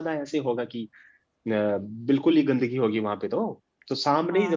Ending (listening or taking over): listening